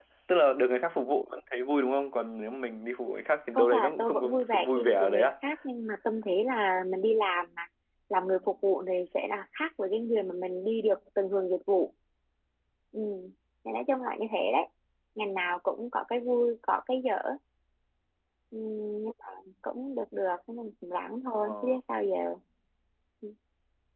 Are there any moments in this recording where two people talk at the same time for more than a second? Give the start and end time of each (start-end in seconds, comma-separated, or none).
3.6-5.3